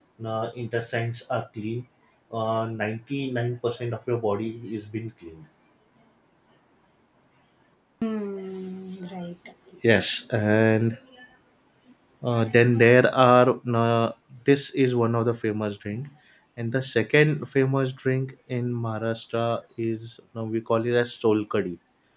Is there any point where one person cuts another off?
No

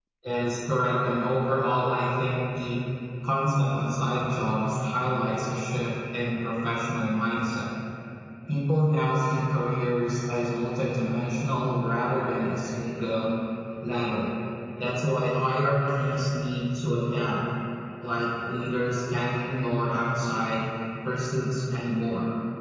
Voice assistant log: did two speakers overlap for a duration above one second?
No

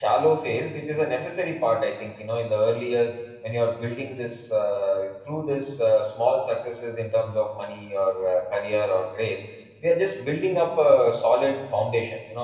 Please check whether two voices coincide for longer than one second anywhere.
No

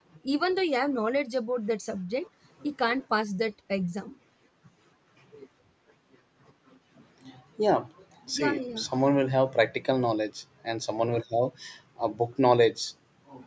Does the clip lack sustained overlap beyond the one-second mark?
Yes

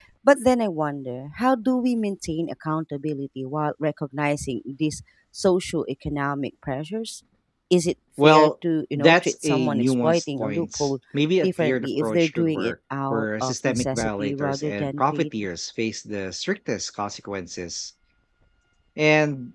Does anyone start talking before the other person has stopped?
Yes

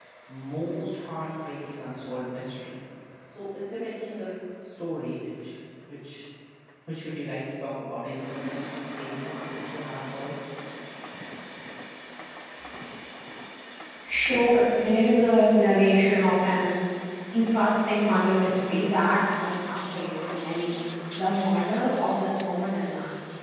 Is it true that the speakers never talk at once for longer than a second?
Yes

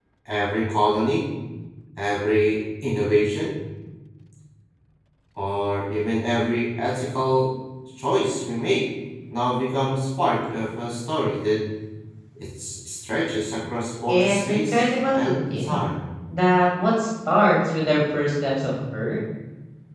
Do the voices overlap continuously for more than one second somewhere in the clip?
Yes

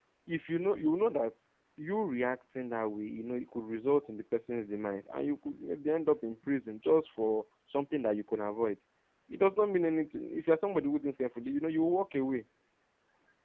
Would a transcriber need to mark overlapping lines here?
No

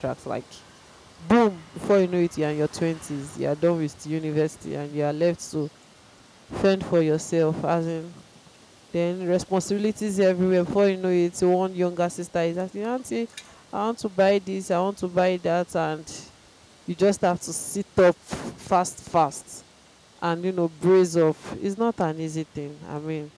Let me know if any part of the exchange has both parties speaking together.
No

